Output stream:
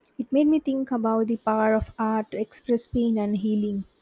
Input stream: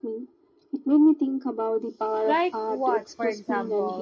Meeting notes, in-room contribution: present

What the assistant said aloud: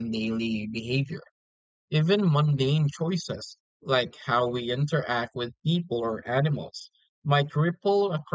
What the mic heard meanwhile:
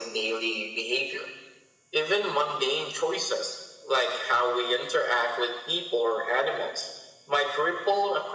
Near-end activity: none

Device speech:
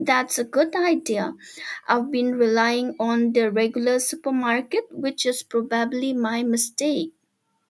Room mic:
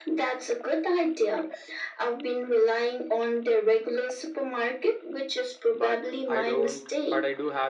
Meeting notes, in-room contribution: present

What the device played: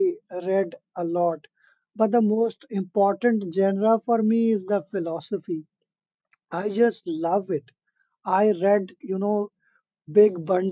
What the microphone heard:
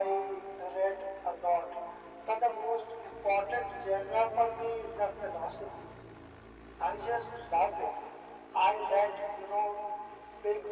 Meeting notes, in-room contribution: none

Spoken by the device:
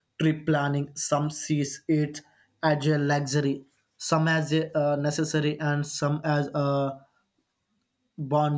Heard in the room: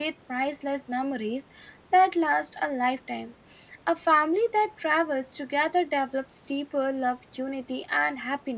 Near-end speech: present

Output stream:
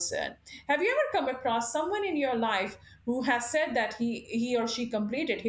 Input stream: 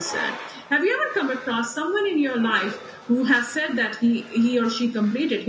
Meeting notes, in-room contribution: none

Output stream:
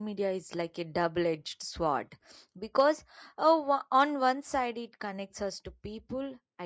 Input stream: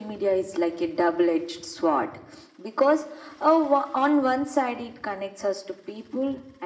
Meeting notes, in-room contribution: none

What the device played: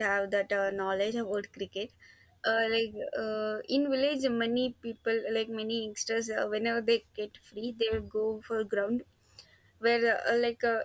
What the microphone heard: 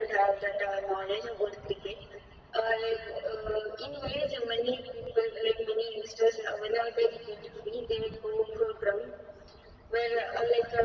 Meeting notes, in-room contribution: none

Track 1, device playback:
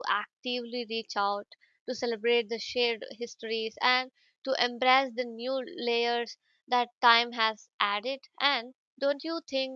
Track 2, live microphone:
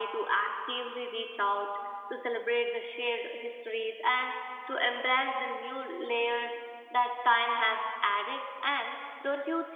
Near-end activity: none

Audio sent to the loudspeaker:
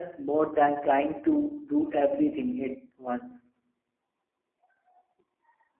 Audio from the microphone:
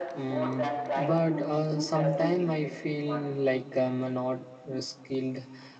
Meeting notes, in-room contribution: present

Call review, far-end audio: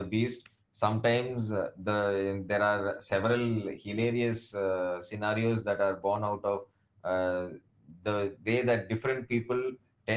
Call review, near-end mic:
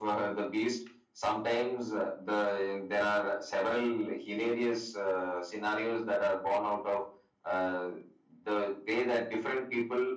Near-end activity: none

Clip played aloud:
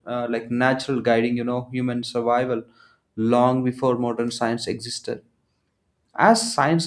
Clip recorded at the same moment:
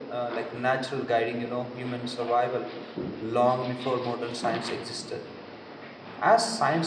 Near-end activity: none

